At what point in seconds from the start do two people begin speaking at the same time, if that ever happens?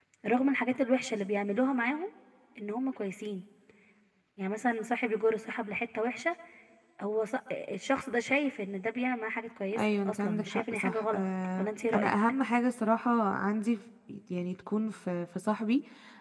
9.7 s

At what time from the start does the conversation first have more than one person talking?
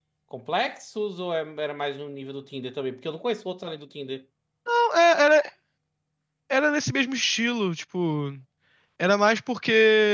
none

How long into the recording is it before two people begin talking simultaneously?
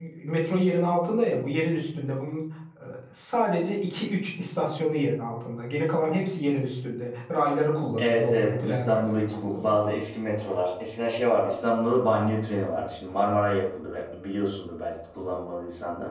8.0 s

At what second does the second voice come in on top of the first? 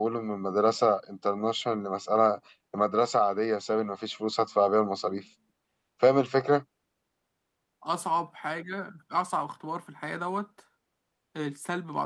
none

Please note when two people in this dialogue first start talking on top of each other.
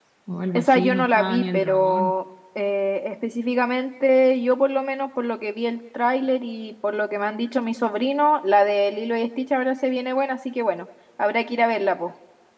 0.6 s

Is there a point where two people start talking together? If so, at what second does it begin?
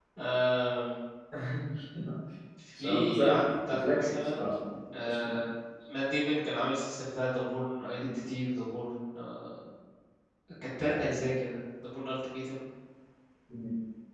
2.8 s

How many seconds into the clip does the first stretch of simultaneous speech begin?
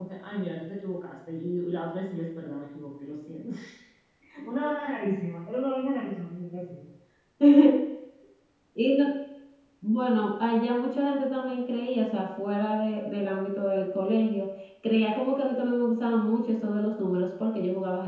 none

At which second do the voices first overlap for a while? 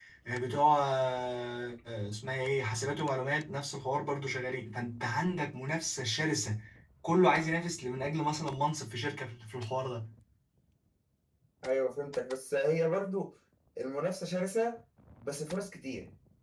none

